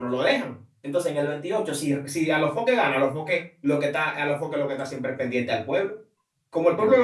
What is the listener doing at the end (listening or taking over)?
listening